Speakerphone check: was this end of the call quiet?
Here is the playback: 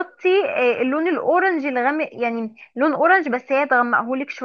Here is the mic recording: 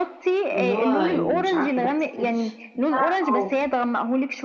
No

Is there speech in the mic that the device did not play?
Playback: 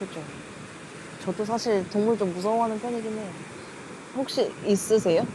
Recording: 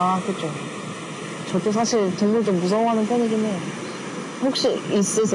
No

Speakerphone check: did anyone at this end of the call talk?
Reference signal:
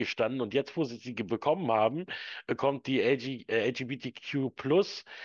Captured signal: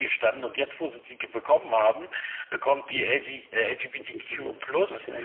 Yes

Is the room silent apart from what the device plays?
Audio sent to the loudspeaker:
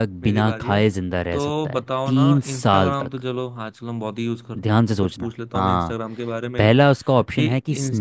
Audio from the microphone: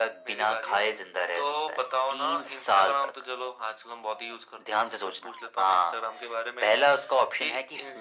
Yes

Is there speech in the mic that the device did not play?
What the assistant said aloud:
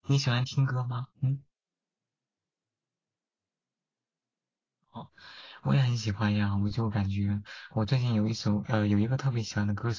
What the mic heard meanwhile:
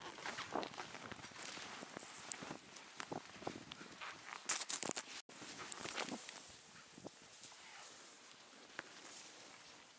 No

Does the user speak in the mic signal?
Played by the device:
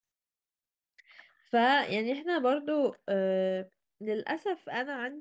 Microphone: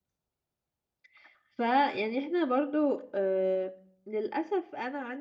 No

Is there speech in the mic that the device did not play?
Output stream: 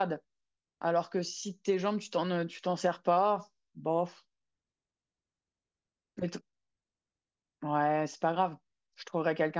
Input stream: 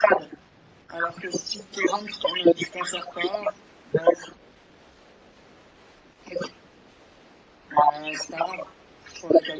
No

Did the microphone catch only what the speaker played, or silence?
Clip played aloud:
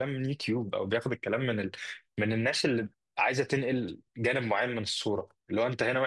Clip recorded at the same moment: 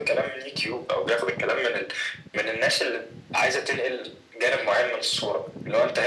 Yes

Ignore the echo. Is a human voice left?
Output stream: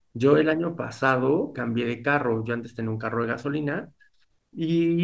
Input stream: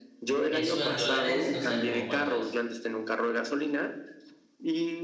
Yes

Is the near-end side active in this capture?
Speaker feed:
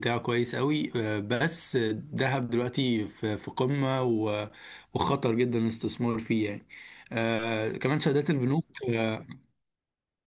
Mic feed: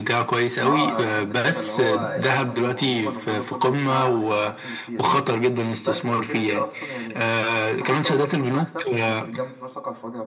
Yes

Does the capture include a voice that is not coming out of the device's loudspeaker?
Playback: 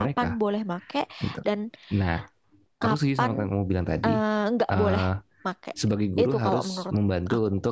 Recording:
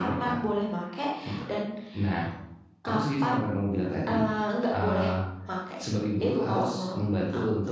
No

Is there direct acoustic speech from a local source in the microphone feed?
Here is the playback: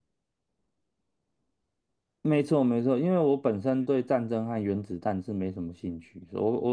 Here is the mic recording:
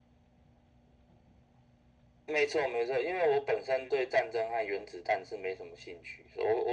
No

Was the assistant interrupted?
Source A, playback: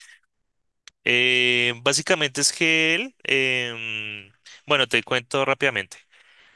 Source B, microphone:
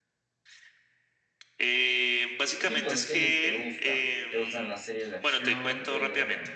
Yes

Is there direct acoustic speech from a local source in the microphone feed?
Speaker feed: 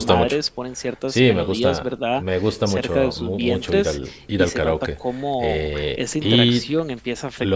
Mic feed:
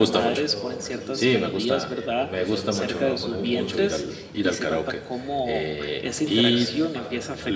Yes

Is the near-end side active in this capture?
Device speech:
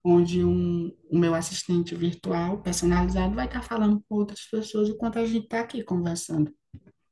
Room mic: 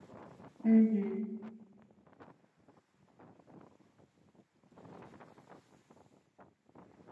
Yes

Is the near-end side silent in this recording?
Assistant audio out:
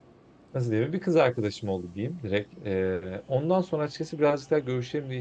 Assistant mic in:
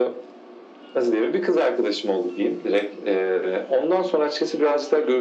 Yes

